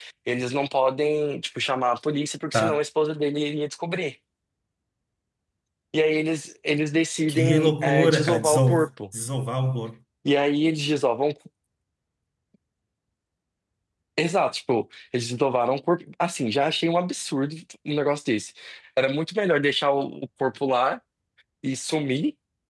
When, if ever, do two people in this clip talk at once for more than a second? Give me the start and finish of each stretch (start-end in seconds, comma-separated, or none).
7.3-8.9